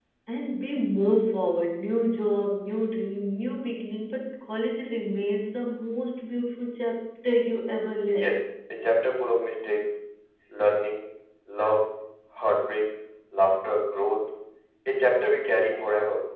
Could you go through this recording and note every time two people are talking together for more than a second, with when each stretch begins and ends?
none

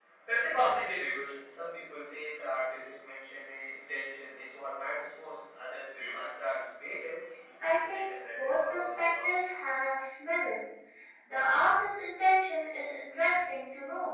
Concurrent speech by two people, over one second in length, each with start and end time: 7.6-9.3

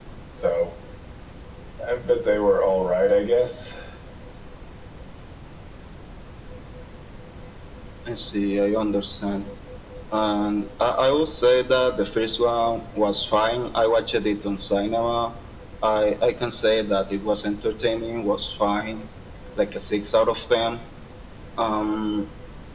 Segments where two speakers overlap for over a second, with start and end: none

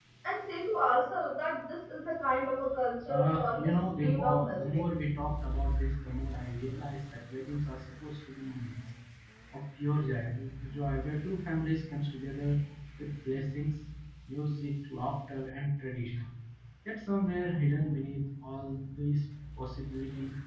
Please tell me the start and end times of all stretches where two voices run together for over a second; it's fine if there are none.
3.0-4.8

